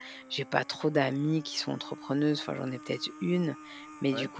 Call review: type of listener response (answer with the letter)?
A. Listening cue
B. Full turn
A